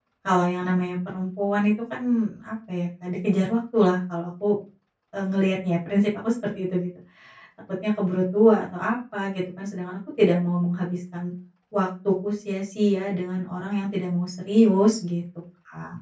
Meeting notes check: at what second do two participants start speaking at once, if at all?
none

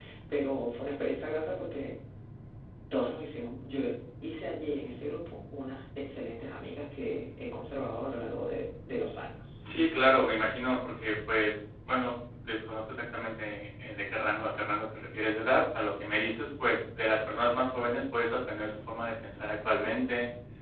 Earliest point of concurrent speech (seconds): none

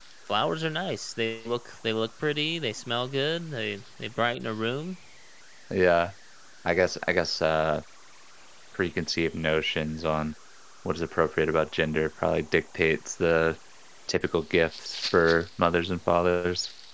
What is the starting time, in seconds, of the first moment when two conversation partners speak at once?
none

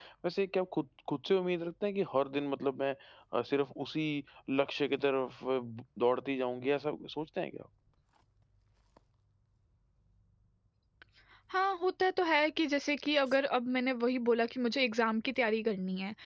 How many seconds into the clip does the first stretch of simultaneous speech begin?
none

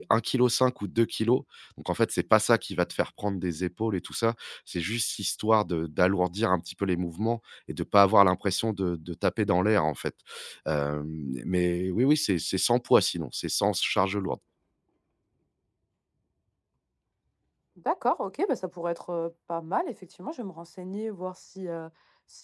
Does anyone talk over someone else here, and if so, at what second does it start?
none

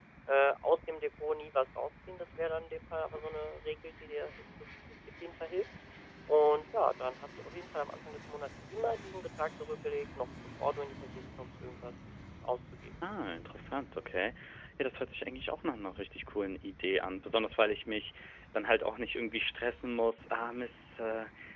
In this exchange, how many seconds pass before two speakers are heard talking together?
none

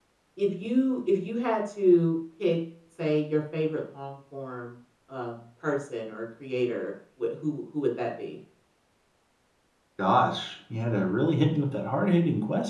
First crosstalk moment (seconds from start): none

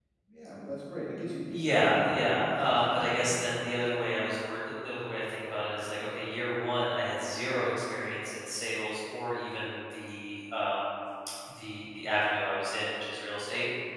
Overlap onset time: 1.5 s

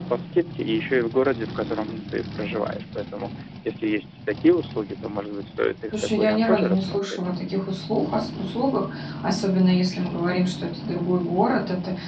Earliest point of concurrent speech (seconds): 5.9 s

